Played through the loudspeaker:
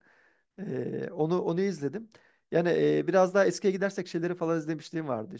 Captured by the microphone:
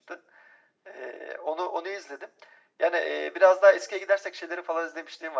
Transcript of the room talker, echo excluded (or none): none